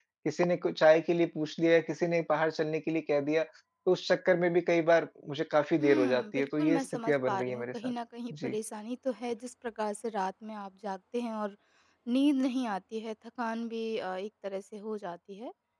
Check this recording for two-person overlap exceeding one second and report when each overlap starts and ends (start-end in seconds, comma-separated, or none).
5.8-7.6